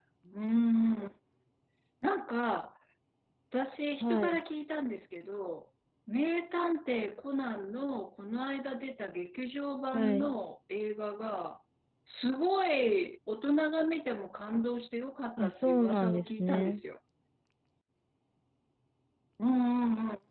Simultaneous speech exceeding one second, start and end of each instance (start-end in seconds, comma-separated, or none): 15.4-16.8